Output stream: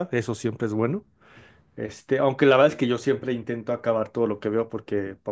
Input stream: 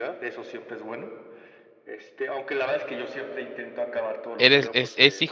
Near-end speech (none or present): present